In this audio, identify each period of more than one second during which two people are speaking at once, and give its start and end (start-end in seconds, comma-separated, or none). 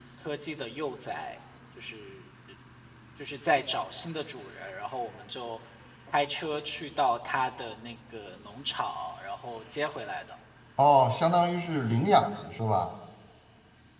none